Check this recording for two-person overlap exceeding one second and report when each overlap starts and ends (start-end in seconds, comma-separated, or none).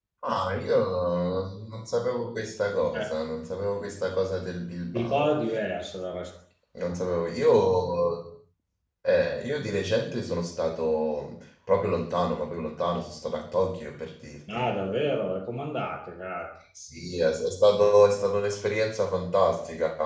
none